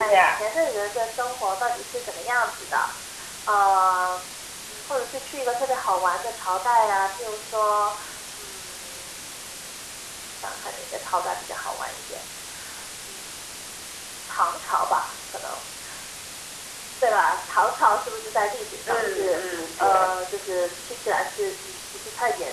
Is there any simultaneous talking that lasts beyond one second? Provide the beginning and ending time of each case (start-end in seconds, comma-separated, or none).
18.9-20.1